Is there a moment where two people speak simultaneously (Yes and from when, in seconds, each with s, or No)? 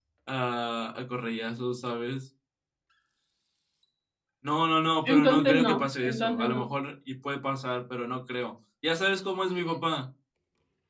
Yes, from 5.0 s